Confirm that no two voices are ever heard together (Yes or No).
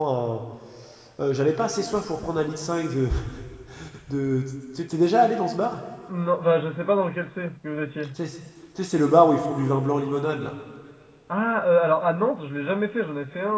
Yes